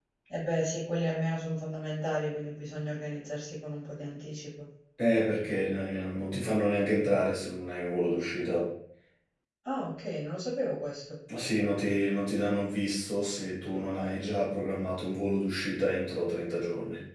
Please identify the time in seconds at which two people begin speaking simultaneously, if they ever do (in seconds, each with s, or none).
none